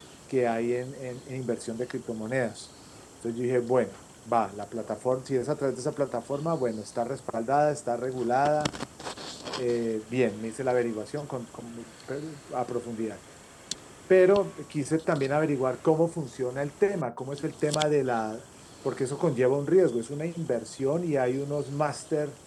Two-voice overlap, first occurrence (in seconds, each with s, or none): none